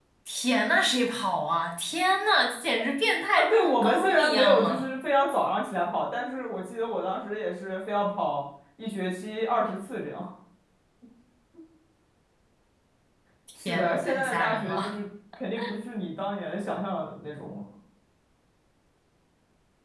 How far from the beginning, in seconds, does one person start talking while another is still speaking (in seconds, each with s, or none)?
3.4 s